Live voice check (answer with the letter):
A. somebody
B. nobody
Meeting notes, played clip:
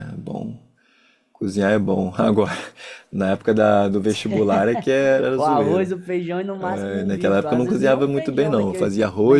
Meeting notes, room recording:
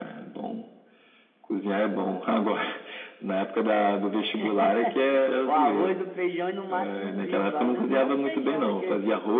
B